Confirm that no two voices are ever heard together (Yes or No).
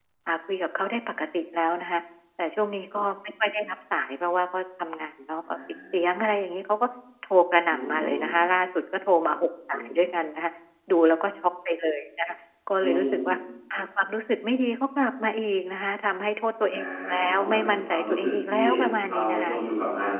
No